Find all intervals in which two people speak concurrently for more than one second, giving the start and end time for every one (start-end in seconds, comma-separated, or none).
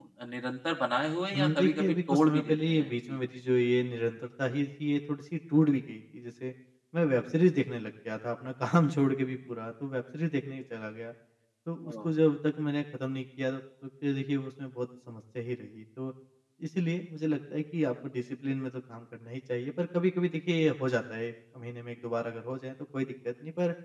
1.3-3.2